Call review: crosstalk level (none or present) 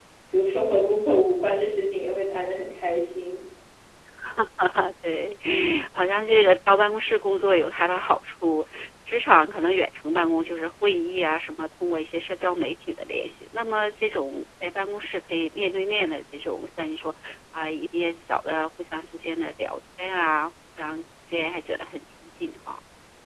none